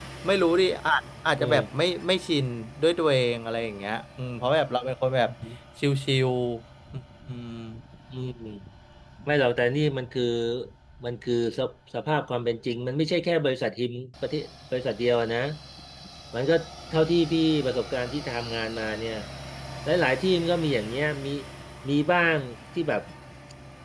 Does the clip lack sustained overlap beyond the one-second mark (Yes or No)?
Yes